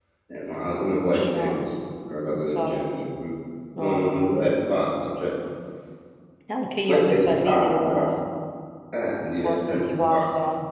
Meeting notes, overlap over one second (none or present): present